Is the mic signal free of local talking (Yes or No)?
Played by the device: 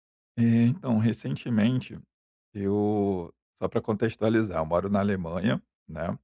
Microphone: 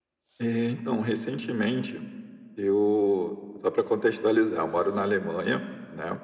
Yes